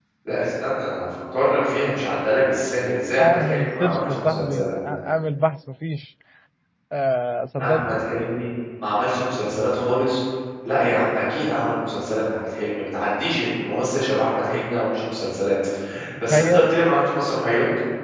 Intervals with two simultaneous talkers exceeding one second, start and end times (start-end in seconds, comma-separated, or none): 3.2-4.7